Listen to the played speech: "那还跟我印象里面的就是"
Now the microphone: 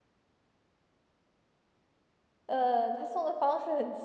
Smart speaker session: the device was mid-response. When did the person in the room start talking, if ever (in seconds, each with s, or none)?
2.4 s